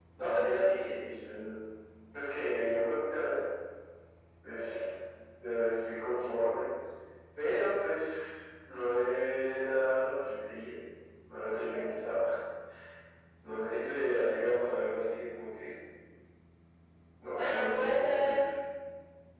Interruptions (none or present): present